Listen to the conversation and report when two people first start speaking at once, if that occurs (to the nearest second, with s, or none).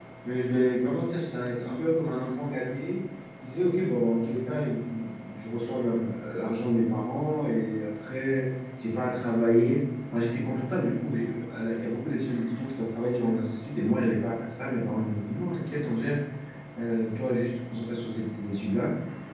none